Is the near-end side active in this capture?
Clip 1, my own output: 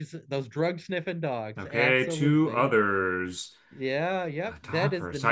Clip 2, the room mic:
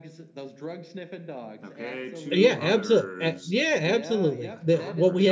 Yes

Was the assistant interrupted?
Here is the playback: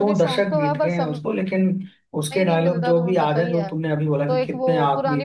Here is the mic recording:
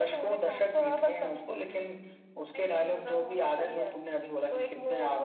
No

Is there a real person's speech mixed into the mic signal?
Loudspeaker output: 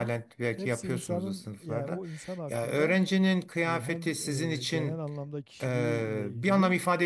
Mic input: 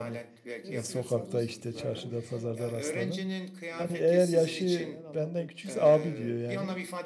Yes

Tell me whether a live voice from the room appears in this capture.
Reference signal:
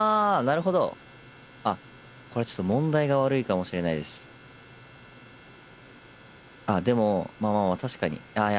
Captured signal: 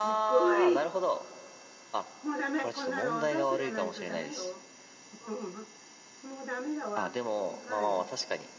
Yes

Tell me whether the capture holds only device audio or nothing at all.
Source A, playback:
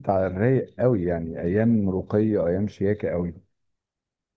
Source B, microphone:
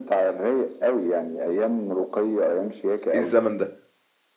No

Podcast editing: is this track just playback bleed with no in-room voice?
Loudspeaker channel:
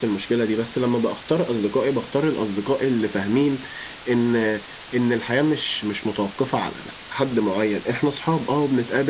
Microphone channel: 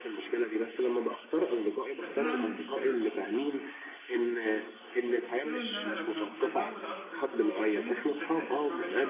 No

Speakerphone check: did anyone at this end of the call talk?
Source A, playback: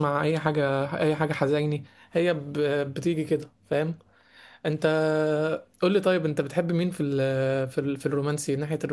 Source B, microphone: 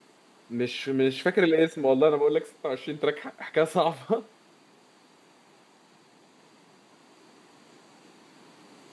Yes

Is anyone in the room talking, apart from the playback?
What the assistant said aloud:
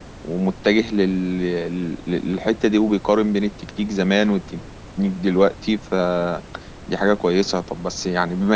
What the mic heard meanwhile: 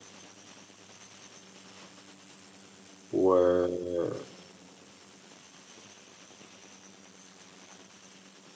Yes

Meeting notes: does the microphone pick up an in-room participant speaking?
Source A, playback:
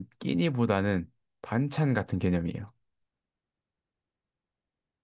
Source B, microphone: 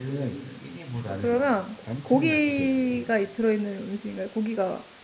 Yes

